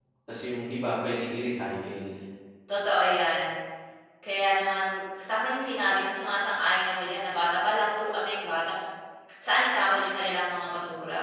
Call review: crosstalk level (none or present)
none